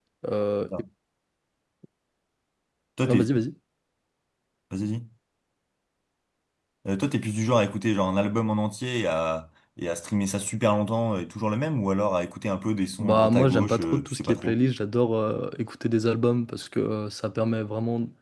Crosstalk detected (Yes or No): Yes